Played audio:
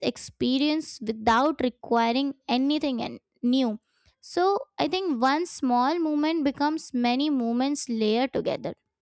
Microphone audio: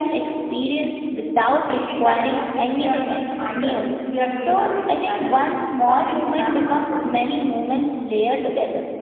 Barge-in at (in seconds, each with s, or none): 1.7 s